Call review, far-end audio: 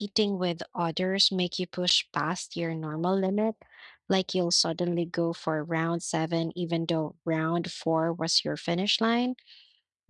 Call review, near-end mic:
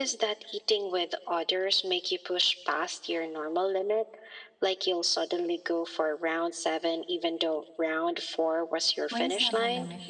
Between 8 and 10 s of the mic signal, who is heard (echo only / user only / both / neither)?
both